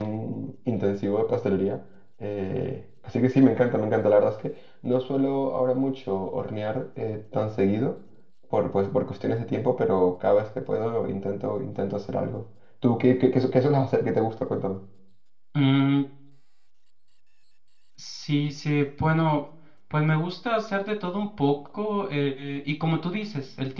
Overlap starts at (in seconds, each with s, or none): none